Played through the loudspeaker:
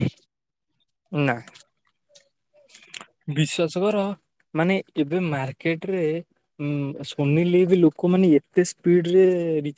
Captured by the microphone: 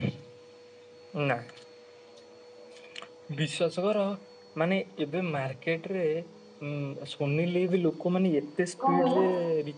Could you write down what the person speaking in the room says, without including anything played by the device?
କଣ କହିଲ?

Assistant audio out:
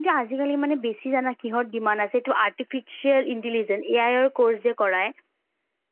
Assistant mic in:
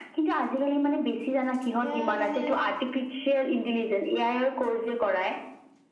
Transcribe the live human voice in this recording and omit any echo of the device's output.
এতিয়া মানে

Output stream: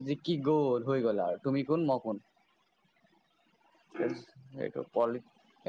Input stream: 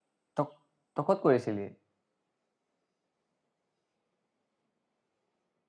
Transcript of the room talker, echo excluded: তক তই ক'ত কৰিছিলি

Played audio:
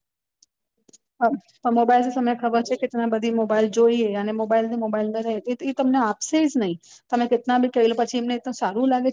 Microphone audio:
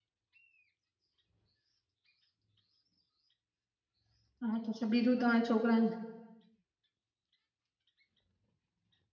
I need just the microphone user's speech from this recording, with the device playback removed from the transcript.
હા તો બીજું તમારા છોકરાને

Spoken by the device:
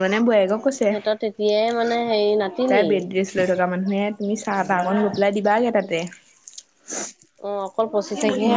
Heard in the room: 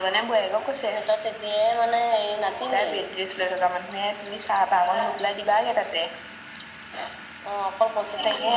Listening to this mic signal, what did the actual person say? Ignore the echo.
none

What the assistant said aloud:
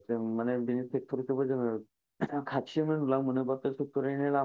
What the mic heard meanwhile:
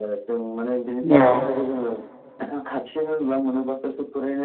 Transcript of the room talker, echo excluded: औ

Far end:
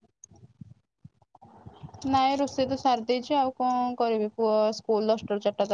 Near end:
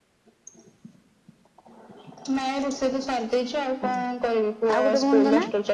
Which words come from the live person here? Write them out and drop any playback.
ଆ ଆଉ ଗୋଟେ ଭଉଣୀ ଙ୍କ ନାଁ।

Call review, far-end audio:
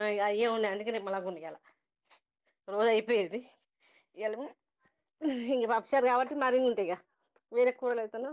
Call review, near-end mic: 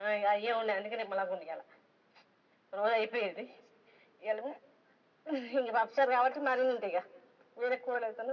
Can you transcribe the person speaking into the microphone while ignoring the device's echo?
none

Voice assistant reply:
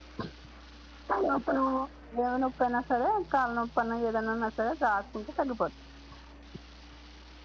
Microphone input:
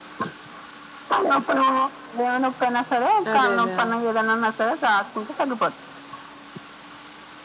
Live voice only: అదే అదే

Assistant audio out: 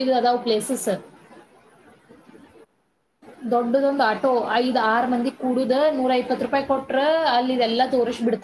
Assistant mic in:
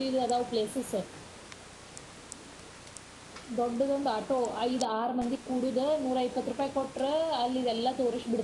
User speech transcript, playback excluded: none

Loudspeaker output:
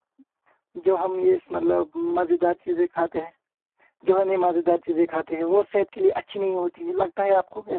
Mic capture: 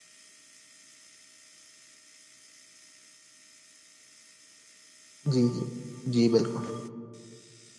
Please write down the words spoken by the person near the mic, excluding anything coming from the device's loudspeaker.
جی جی جی بالکل

